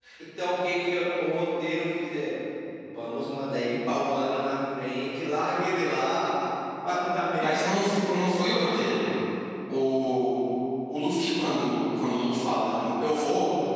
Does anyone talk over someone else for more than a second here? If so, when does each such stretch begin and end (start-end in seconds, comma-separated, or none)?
7.4-8.6